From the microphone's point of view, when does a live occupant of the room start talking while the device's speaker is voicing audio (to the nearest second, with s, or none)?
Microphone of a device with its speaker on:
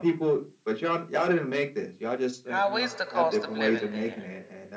2 s